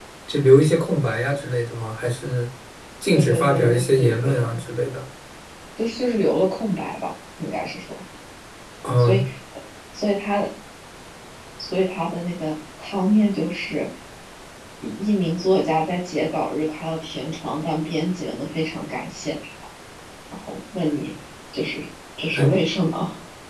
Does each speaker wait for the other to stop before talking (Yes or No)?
No